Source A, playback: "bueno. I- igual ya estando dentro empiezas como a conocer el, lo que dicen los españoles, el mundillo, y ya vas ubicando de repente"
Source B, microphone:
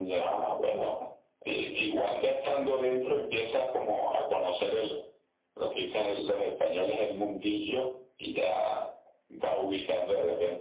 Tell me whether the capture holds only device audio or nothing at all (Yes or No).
Yes